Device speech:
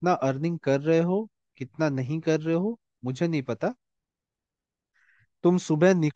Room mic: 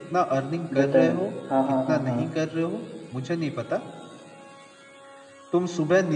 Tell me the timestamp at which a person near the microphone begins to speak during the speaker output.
0.7 s

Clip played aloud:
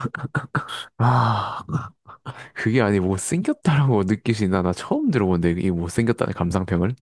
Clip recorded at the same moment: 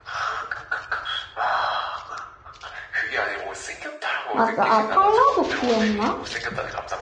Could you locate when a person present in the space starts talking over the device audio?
4.3 s

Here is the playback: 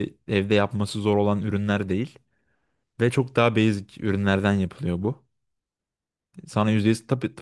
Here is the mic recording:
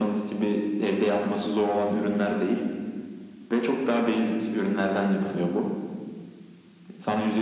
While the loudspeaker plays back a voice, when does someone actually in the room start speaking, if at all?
none

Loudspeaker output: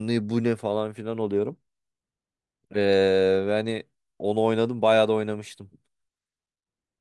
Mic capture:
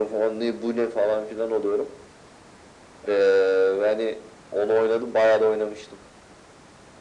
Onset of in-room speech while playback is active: none

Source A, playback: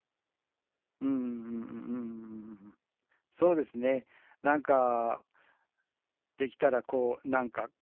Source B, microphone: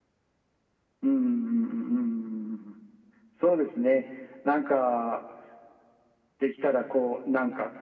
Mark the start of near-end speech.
none

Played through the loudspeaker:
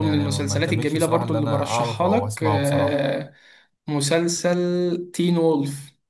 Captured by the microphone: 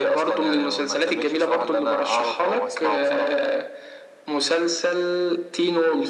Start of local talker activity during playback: none

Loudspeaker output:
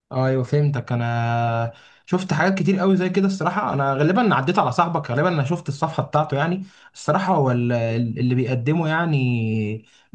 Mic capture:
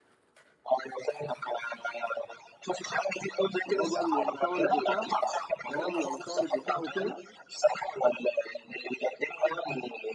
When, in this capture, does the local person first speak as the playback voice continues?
3.6 s

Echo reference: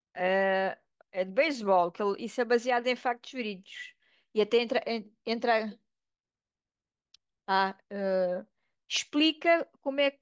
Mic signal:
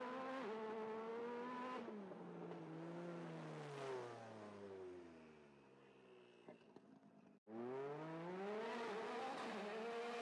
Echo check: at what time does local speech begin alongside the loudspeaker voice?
none

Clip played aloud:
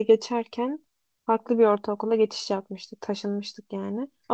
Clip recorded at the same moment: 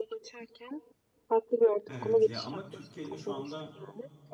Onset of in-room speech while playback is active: 1.9 s

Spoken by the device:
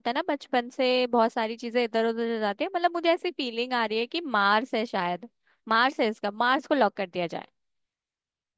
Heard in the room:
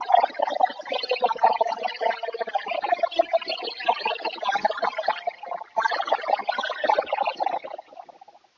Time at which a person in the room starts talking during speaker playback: none

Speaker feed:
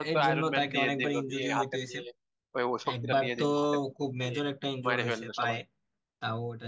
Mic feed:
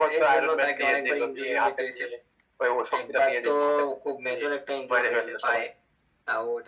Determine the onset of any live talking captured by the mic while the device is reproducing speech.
none

